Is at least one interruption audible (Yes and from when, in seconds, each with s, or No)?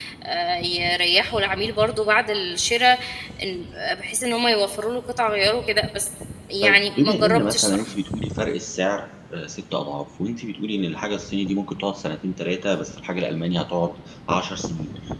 Yes, from 6.6 s